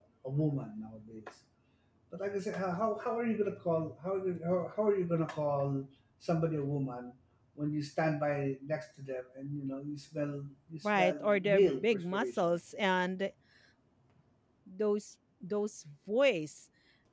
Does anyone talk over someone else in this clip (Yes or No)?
Yes